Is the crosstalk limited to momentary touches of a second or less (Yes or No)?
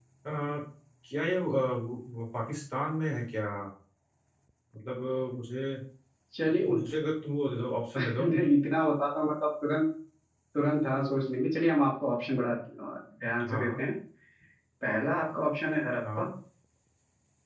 Yes